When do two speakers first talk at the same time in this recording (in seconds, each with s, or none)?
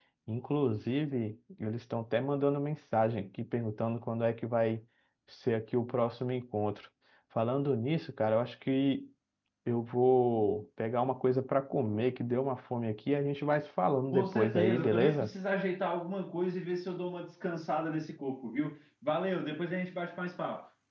14.1 s